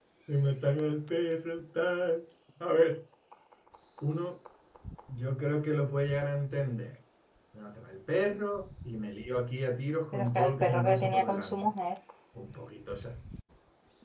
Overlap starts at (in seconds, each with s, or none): 10.1 s